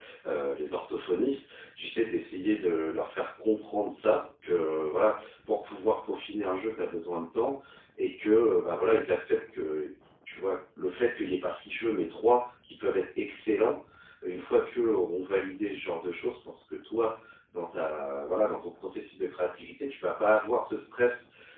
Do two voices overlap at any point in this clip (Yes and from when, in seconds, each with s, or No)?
No